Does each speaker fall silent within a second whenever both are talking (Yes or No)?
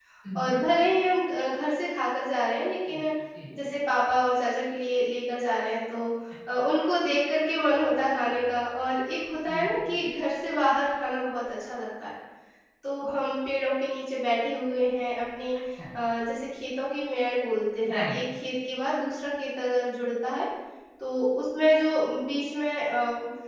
Yes